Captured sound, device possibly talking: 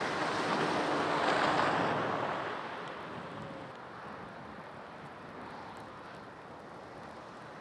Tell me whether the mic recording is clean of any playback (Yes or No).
Yes